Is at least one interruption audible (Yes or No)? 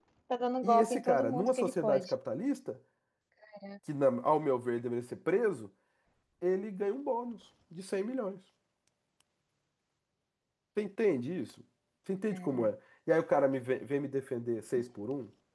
Yes